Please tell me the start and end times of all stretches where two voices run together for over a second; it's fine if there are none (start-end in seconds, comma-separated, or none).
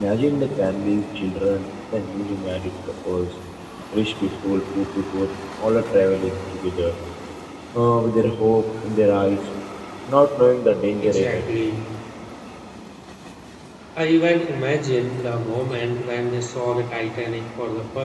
none